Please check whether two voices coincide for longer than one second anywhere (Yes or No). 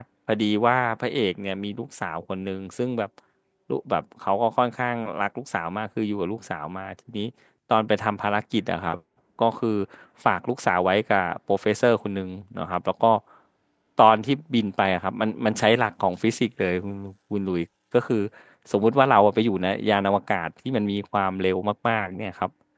No